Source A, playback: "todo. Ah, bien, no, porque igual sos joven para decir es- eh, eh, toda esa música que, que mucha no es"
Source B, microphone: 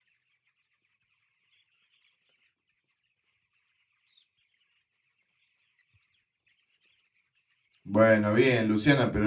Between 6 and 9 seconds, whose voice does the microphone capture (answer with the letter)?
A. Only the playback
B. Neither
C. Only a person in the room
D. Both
C